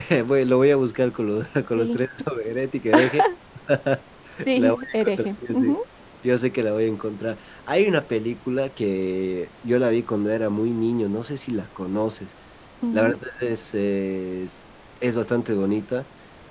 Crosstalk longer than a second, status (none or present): present